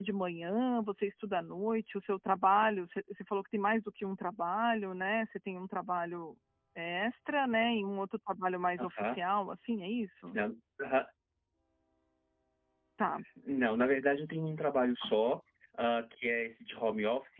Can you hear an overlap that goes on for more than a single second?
No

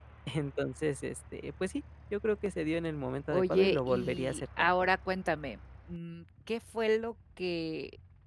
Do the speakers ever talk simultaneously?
Yes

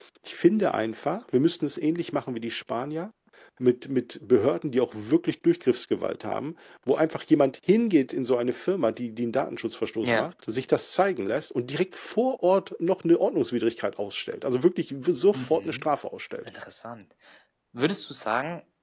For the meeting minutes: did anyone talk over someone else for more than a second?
No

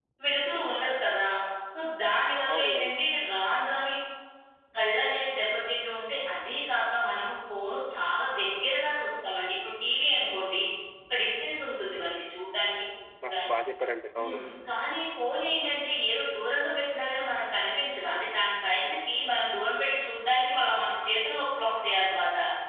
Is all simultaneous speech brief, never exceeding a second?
Yes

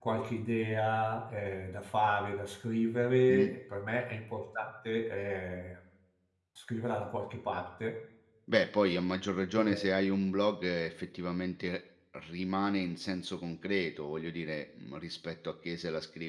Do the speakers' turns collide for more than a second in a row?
No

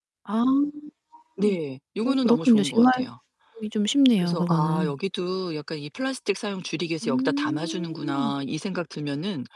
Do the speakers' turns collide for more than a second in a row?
Yes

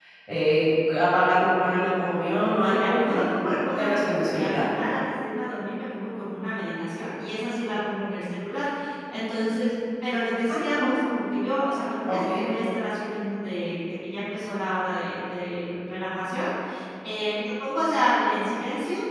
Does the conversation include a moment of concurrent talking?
Yes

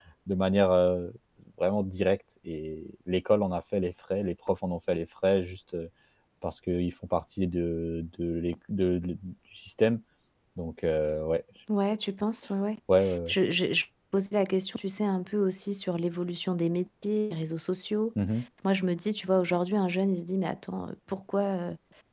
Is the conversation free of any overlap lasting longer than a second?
Yes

